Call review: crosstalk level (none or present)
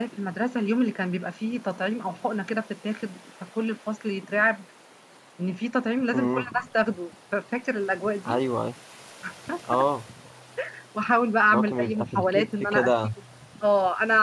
present